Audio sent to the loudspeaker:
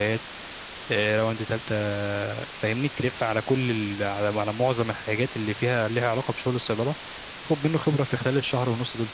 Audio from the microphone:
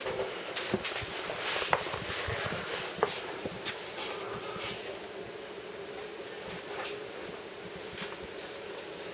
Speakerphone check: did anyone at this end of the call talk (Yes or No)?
No